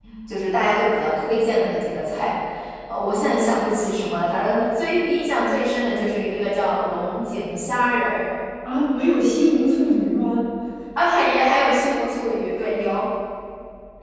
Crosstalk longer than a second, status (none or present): none